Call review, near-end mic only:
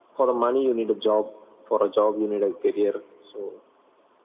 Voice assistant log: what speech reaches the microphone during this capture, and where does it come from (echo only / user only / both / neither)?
echo only